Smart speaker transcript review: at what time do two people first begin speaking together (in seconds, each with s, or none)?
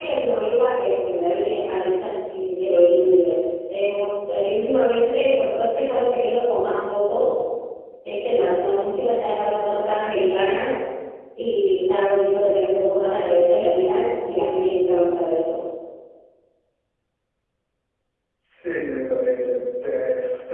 none